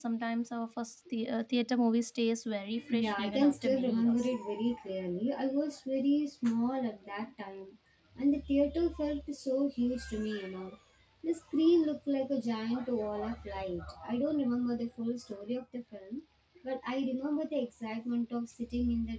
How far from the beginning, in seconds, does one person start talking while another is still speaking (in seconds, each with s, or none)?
2.8 s